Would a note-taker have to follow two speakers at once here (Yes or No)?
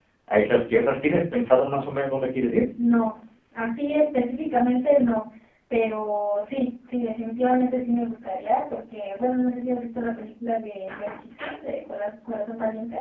No